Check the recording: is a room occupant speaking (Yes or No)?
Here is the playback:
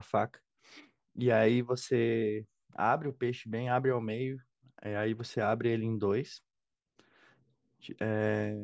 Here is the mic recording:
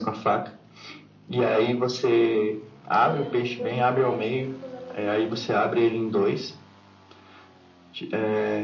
Yes